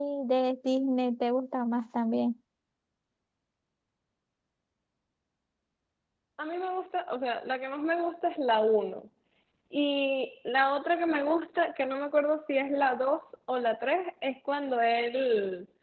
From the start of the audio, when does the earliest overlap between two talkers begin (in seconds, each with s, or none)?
none